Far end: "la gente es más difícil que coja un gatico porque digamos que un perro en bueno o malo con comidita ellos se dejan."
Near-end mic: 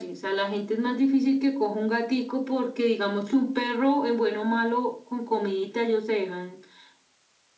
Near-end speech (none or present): none